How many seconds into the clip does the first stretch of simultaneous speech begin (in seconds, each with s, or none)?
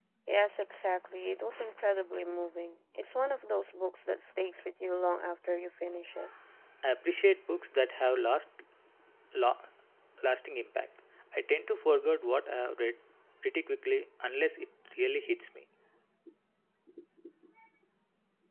none